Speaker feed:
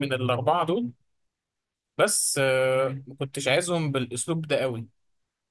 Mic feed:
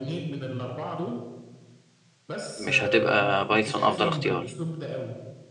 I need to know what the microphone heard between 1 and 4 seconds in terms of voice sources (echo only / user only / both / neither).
both